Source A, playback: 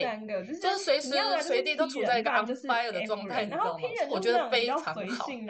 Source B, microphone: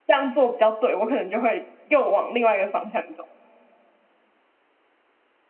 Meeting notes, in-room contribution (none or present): present